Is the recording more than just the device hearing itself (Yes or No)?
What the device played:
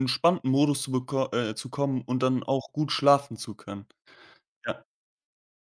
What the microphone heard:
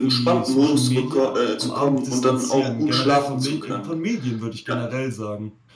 Yes